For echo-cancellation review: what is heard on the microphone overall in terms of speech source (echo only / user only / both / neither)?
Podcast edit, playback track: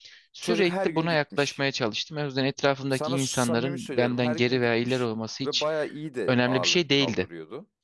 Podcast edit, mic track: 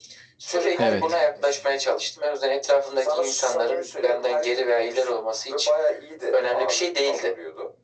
both